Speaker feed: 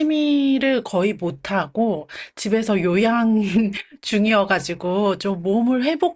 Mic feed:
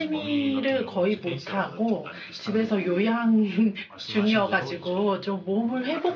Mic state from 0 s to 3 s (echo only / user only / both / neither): both